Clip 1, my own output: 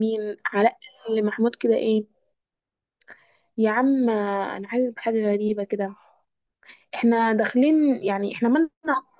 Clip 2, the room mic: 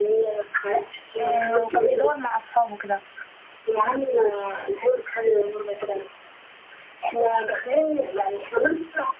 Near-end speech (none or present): present